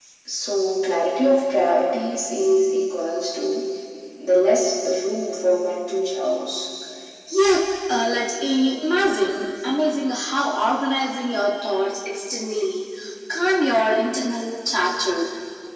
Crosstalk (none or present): none